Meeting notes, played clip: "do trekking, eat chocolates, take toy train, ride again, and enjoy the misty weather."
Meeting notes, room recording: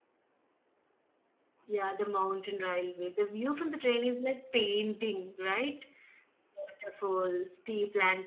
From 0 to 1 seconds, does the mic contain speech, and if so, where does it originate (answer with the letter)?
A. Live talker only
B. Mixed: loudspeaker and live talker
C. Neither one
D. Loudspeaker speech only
C